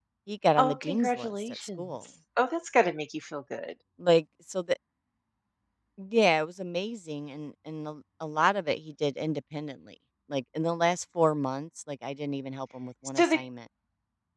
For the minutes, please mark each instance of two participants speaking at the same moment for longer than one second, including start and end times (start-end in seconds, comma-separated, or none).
0.6-2.0